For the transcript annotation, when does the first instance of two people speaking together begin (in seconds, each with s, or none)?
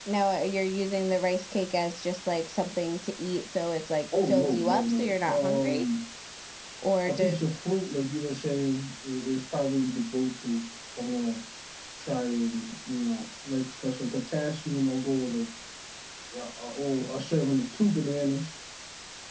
4.3 s